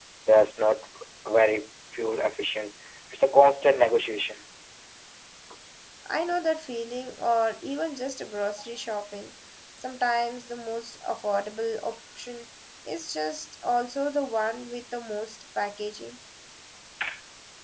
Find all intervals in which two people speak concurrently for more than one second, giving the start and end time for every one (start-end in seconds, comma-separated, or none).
none